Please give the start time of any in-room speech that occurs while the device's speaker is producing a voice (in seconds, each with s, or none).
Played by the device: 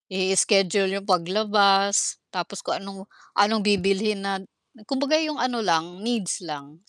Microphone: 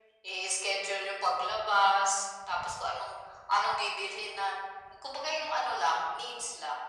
none